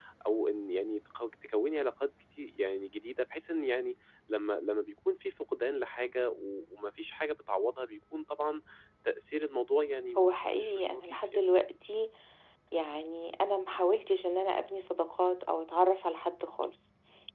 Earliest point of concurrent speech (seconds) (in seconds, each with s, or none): 10.2 s